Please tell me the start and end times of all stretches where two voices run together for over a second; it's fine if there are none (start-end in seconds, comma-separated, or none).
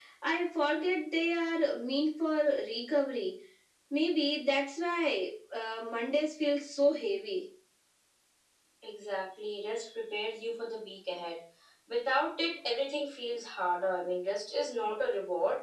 none